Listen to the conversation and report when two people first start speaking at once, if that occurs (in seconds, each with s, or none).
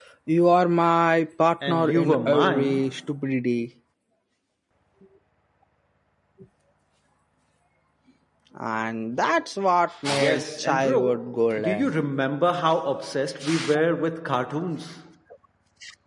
1.7 s